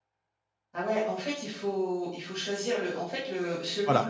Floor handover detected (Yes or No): No